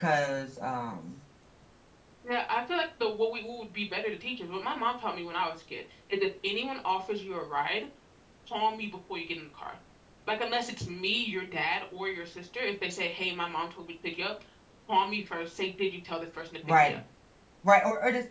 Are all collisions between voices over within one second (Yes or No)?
Yes